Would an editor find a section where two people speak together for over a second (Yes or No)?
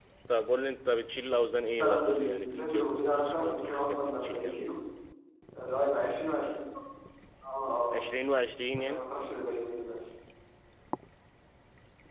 Yes